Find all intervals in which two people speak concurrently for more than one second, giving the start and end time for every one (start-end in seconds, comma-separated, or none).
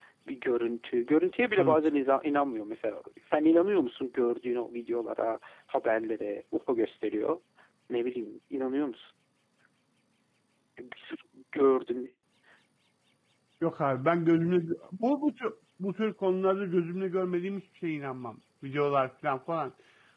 none